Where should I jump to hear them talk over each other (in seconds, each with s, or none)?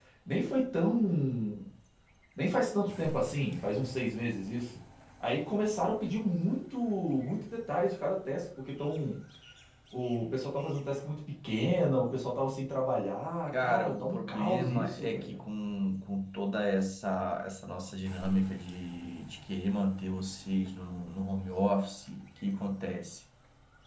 13.5 s